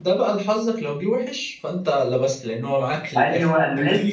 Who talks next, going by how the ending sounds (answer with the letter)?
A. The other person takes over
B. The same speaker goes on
A